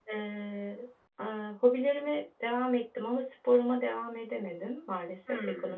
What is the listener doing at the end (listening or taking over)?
listening